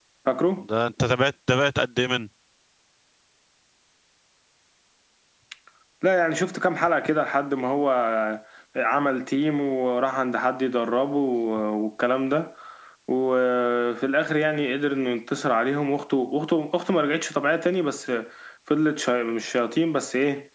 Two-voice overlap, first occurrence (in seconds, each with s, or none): none